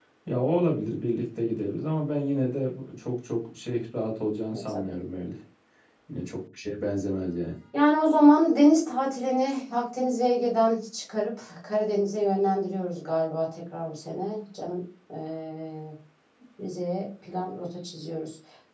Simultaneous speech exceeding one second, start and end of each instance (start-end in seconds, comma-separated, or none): none